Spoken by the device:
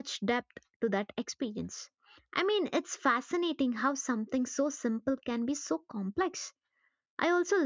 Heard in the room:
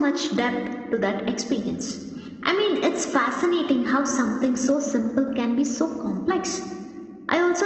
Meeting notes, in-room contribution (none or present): none